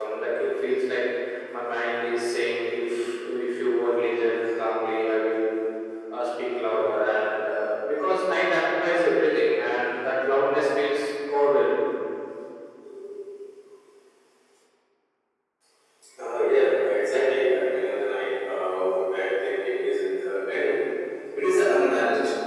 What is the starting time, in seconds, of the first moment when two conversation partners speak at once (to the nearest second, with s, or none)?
none